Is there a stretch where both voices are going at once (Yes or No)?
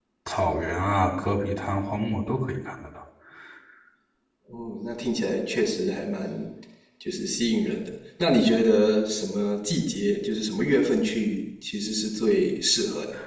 No